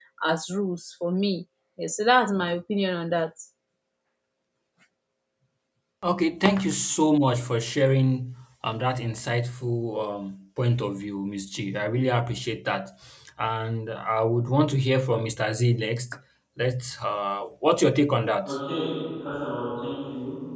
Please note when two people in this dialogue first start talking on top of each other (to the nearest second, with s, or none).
none